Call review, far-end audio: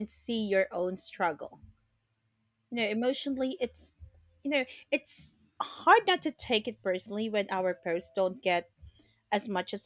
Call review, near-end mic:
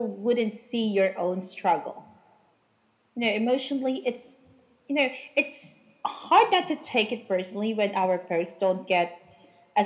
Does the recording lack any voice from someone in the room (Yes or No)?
Yes